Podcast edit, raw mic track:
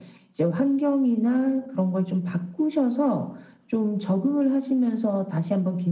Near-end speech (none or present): none